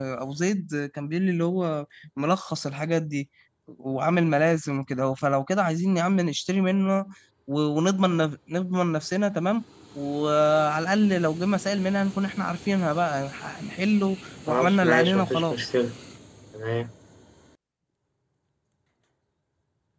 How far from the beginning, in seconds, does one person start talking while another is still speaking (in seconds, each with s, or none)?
14.5 s